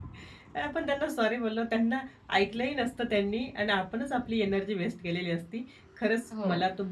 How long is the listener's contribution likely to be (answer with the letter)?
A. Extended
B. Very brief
B